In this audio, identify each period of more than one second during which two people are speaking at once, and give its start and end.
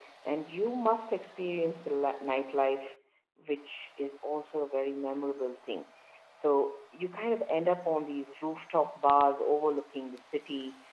none

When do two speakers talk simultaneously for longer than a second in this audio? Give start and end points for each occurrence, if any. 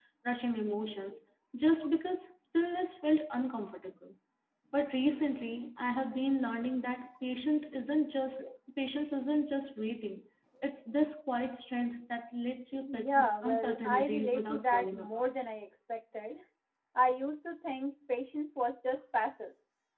12.9-15.2

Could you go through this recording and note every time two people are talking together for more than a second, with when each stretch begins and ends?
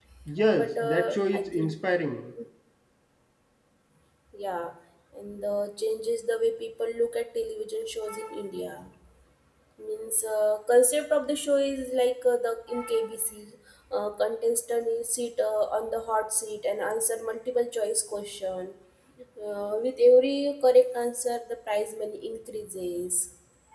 0.5-1.7

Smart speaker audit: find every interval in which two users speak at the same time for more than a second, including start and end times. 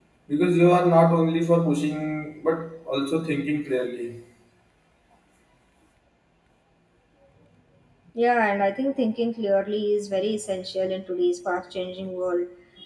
none

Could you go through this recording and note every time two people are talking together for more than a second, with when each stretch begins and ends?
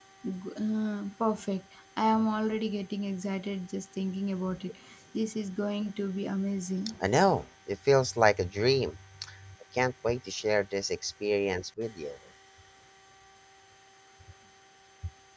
none

